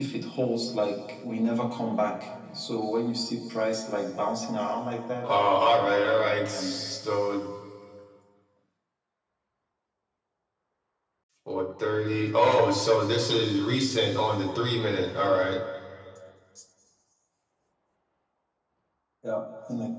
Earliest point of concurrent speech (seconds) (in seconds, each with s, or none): 5.2 s